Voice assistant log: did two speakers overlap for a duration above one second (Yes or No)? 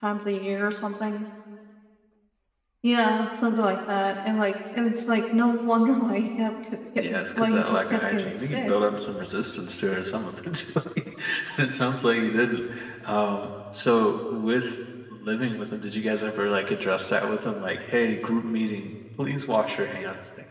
Yes